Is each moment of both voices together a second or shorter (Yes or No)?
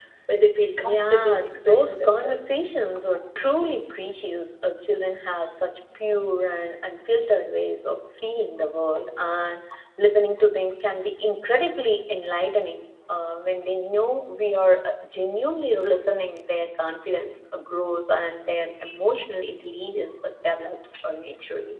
No